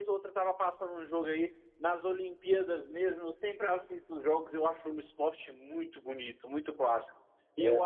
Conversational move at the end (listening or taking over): listening